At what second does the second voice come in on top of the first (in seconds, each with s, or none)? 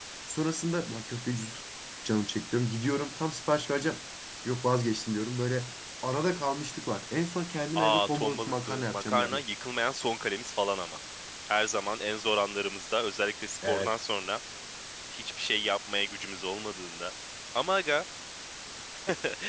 7.8 s